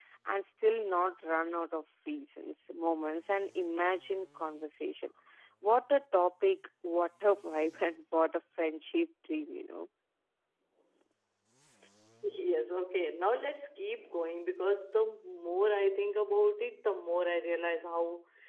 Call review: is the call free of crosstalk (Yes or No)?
Yes